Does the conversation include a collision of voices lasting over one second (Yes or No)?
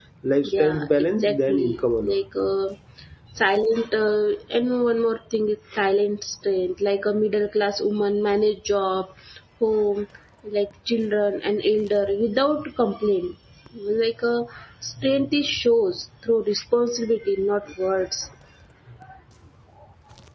Yes